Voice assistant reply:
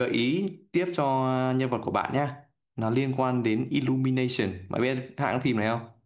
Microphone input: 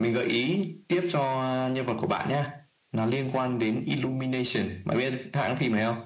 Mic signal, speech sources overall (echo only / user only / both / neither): echo only